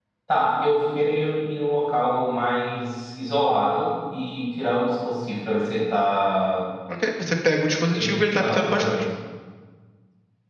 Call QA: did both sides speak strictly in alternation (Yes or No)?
No